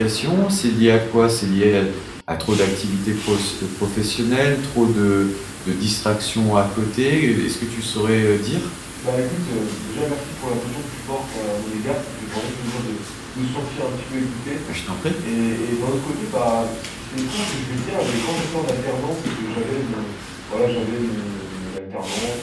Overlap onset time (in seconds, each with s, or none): none